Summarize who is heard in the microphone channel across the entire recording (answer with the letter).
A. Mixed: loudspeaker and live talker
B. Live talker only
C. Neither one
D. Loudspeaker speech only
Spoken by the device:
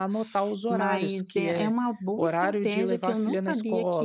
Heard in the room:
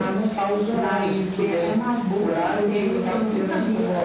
D